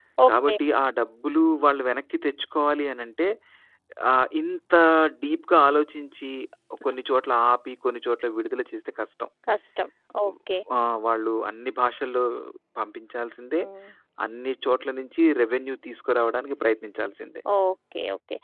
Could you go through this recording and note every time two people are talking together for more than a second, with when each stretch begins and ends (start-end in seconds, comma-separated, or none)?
none